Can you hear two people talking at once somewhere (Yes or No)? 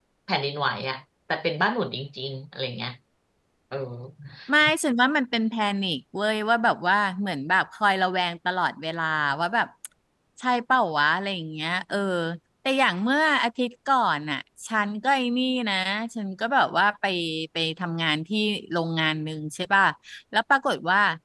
No